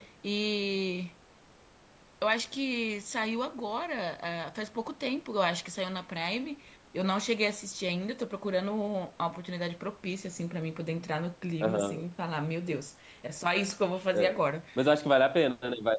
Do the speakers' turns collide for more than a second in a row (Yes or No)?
No